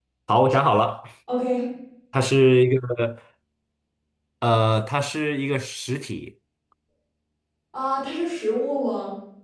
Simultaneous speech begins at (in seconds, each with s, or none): none